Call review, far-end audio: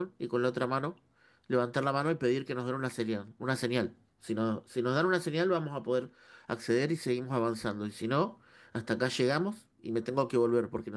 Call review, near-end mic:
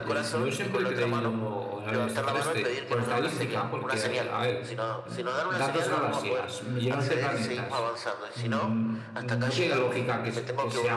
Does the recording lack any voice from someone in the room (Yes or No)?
No